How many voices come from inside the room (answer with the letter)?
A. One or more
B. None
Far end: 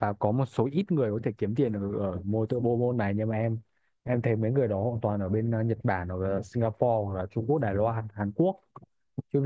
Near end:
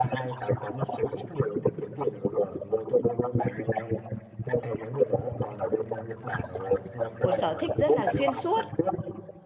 A